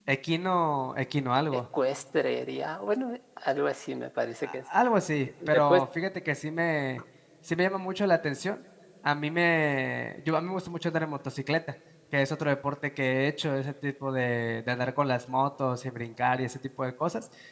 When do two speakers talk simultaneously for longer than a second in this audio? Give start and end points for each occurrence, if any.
none

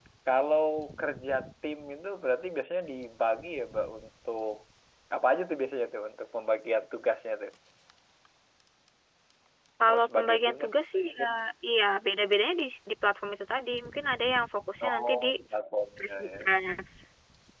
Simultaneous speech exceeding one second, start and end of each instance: 9.9-11.2

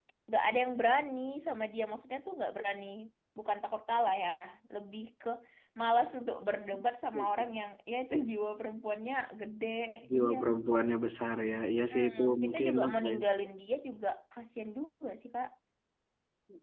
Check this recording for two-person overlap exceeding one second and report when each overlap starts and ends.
11.9-13.2

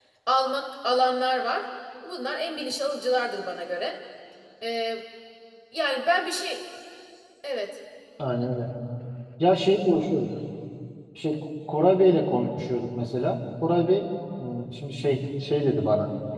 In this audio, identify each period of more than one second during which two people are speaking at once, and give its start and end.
none

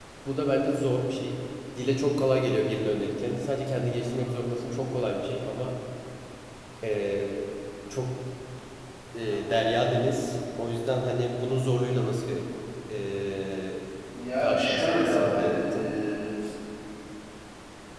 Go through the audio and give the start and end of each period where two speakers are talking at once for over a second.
14.4-15.7

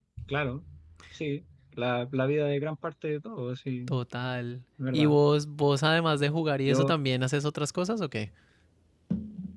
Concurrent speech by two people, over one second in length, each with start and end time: none

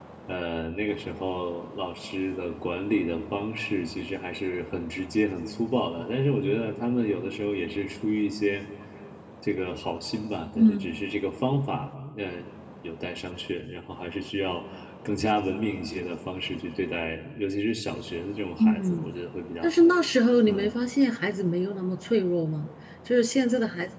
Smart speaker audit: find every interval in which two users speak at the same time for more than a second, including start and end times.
none

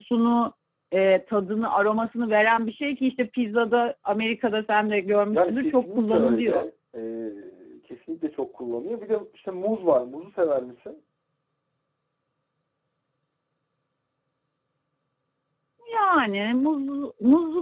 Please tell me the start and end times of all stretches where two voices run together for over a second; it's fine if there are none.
5.3-6.6

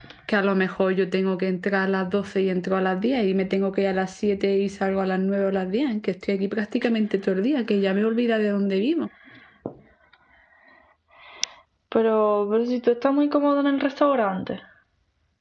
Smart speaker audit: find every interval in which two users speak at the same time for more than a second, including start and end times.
none

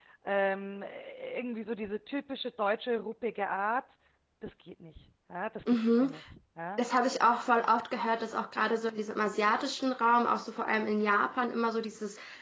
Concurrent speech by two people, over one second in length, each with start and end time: none

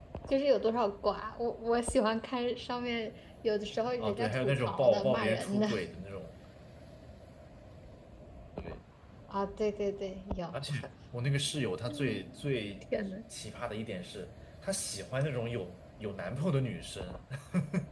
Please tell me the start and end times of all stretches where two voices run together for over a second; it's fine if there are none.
4.0-5.7

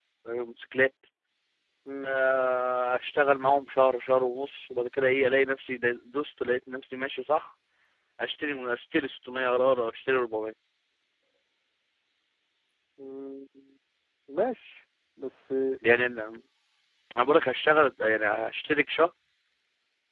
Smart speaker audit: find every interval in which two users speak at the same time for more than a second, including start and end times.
none

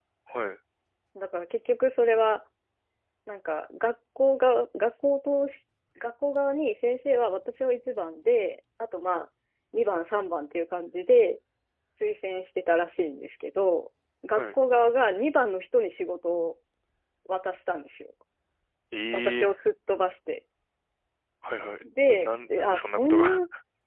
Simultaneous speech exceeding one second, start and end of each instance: 21.8-23.2

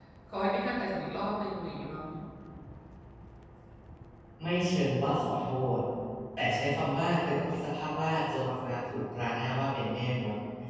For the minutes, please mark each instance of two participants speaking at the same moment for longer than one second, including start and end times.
none

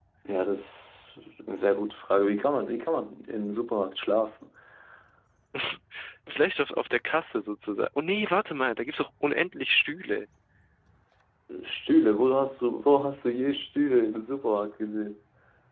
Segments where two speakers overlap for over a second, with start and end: none

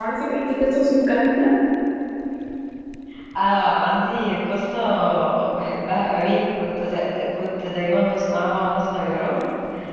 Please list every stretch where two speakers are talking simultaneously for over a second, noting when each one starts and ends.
none

